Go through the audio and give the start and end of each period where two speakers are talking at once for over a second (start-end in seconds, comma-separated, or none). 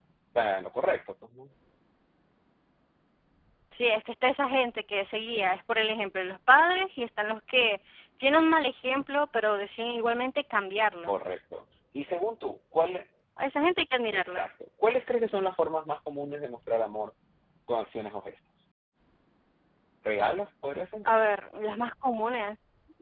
none